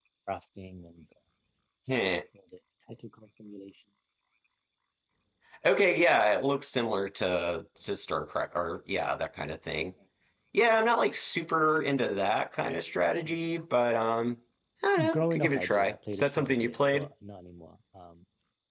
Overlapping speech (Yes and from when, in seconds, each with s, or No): Yes, from 15.1 s